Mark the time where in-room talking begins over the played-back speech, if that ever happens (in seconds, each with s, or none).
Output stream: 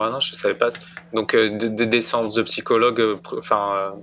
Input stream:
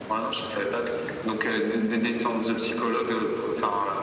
none